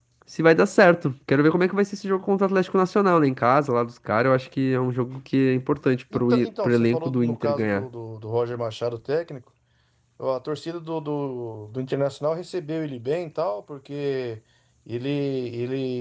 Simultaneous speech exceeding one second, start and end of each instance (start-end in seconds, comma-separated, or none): 6.1-7.9